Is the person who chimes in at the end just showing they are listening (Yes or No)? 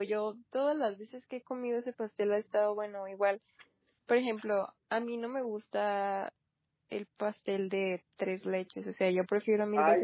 No